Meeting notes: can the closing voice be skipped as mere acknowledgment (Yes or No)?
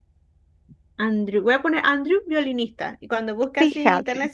Yes